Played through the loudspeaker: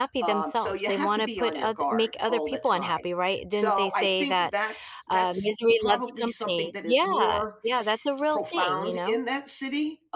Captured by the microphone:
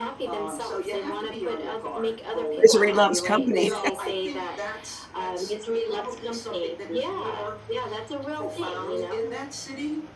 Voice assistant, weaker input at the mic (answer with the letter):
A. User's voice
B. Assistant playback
B